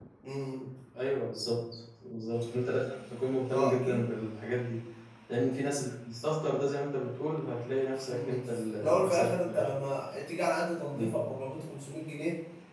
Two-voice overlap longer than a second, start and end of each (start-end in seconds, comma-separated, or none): 8.0-9.7